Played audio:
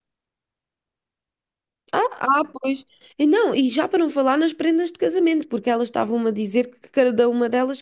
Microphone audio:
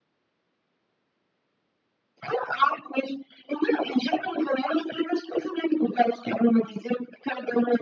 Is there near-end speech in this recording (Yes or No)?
No